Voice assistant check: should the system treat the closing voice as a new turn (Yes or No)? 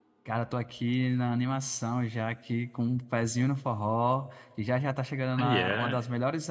No